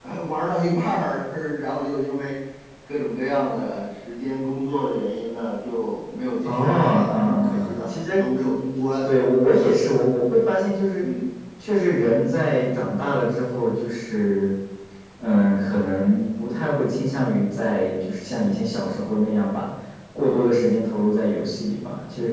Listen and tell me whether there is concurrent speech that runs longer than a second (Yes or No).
Yes